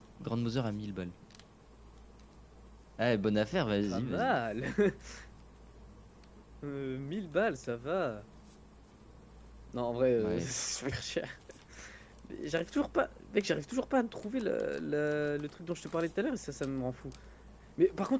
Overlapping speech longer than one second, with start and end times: none

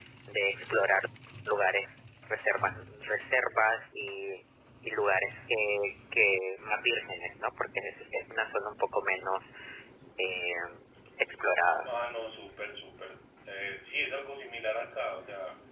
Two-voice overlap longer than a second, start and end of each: none

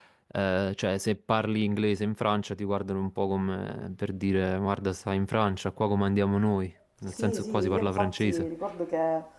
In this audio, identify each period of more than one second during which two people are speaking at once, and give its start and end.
7.2-8.5

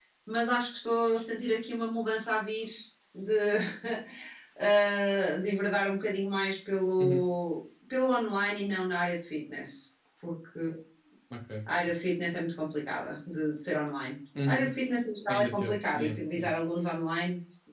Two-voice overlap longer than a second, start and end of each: 15.3-16.5

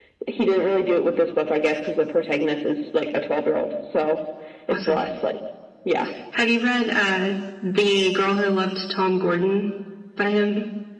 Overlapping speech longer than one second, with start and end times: none

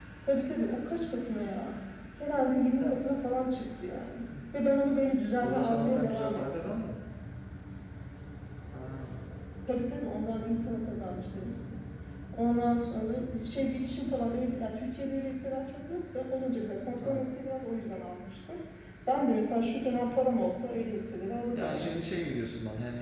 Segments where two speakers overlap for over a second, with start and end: 5.4-6.7

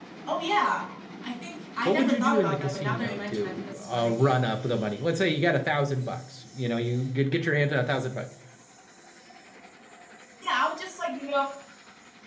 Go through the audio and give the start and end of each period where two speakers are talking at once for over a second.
1.9-4.4

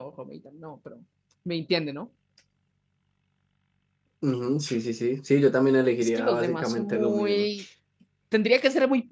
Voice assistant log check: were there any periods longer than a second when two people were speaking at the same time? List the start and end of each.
6.0-7.5

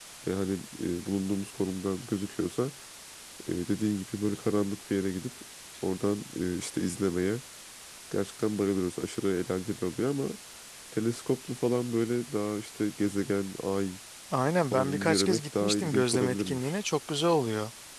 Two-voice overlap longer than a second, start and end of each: 14.7-16.8

